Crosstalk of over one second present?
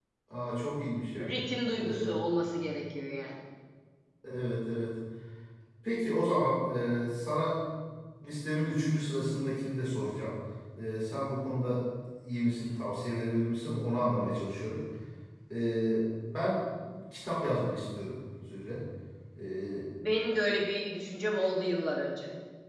No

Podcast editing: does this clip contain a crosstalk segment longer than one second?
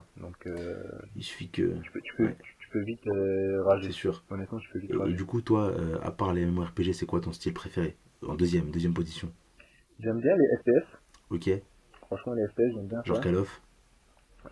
No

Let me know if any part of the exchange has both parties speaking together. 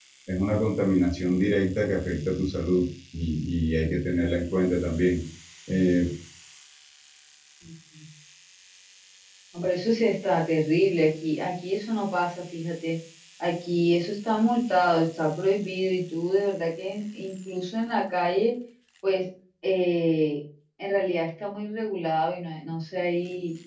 No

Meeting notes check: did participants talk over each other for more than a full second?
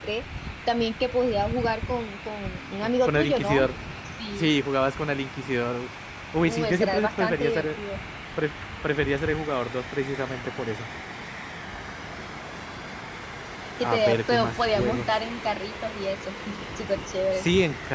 Yes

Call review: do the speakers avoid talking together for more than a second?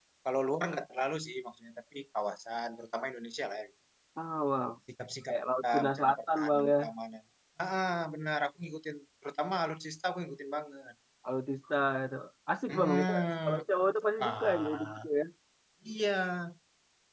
No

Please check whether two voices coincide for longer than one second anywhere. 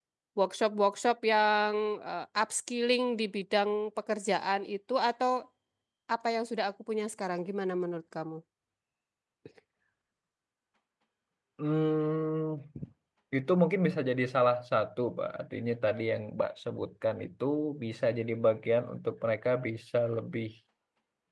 No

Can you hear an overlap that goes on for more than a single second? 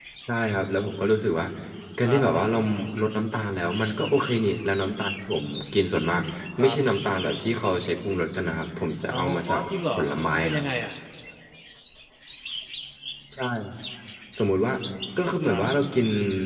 Yes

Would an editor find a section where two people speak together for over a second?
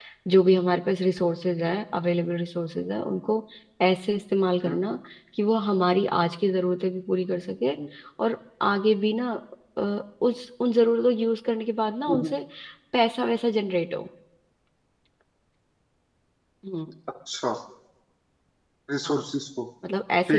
No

